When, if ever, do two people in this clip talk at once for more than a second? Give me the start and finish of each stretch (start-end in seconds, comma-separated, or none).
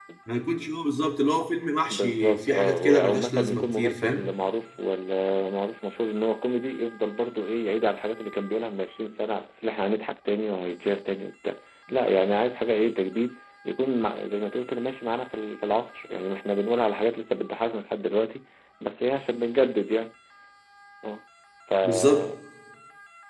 1.9-4.3